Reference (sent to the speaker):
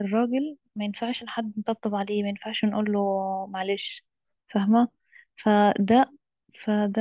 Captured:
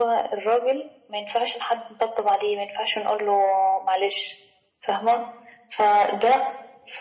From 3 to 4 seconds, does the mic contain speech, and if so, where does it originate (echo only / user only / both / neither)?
echo only